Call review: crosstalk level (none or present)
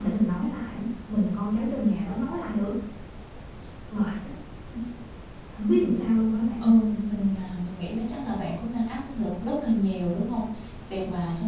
none